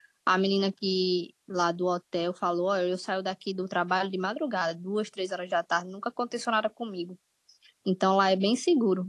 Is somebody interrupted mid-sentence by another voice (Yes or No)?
No